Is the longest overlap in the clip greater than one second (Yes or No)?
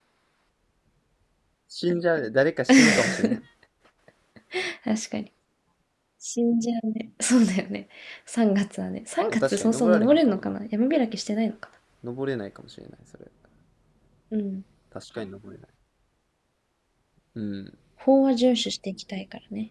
Yes